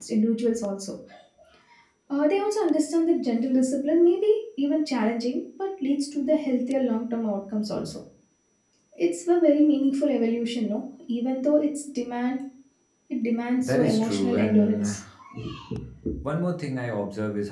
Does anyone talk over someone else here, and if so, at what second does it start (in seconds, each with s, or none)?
13.6 s